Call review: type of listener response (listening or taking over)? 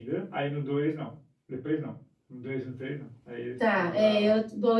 taking over